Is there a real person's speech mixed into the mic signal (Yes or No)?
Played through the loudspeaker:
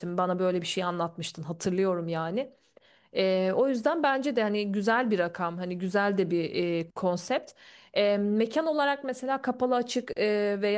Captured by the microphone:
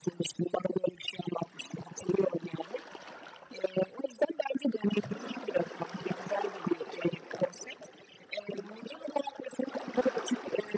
No